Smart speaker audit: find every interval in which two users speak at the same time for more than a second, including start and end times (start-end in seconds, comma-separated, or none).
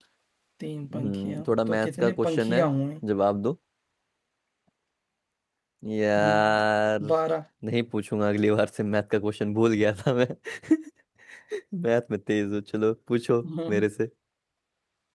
0.9-2.6